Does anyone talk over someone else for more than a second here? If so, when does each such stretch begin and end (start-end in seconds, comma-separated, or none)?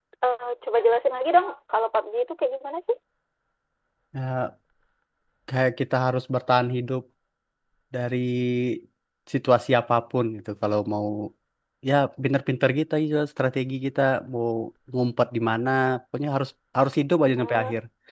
none